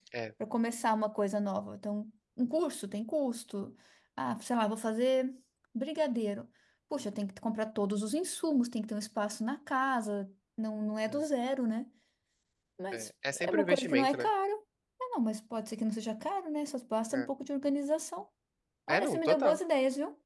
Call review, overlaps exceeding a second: present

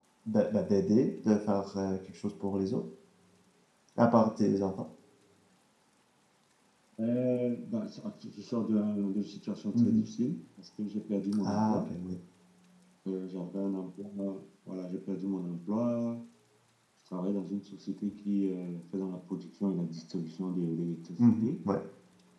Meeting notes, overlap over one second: none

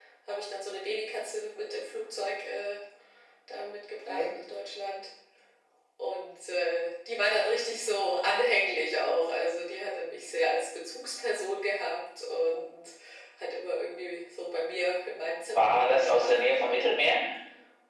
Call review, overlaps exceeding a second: present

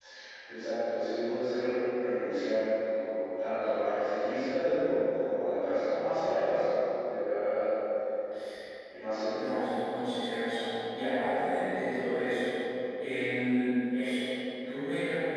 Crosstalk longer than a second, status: none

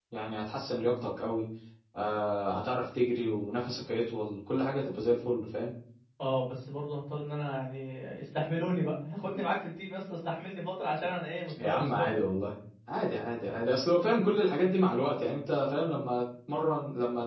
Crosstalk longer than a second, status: none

